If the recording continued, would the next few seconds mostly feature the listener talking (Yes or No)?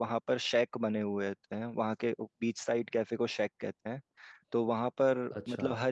No